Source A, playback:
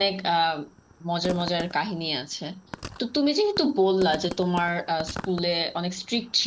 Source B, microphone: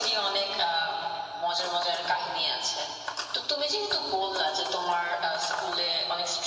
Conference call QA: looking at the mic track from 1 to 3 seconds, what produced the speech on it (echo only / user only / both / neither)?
echo only